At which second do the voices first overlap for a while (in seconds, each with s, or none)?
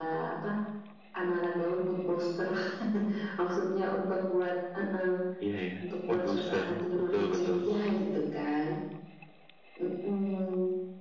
6.1 s